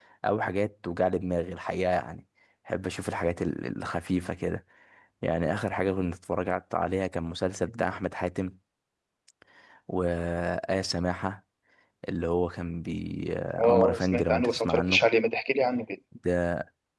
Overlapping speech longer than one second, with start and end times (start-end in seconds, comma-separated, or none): 13.6-15.1